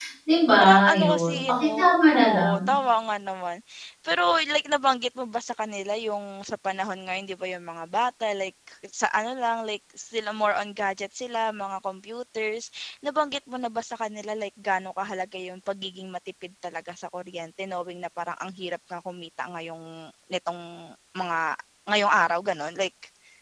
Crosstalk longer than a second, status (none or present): present